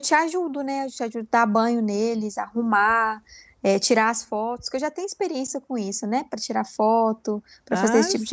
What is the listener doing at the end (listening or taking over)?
taking over